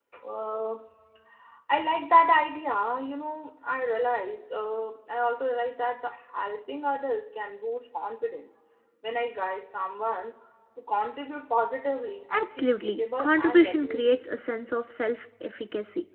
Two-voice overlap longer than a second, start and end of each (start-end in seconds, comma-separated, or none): 12.3-14.0